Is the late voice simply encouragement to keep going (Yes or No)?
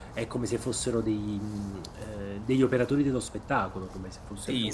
No